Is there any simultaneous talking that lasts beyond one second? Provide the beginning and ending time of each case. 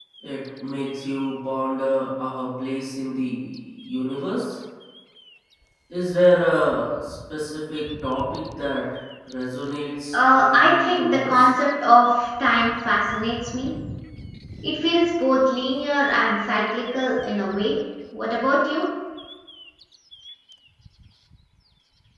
10.1-11.5

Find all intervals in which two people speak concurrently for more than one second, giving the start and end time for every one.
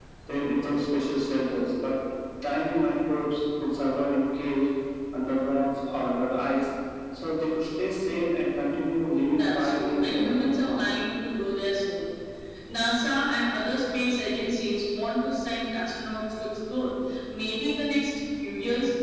9.3-10.9

